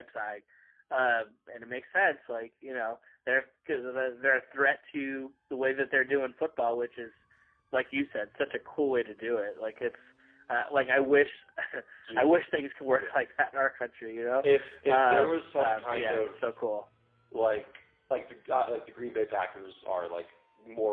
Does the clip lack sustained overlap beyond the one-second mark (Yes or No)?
No